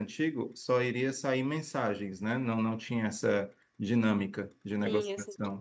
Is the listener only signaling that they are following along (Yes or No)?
No